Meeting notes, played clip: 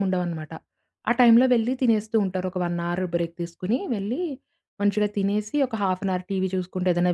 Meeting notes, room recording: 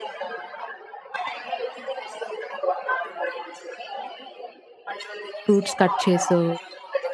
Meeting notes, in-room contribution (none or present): present